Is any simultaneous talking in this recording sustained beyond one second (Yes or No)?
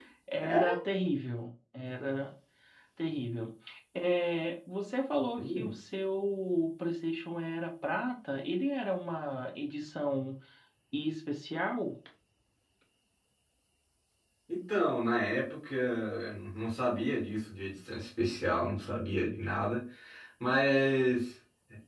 No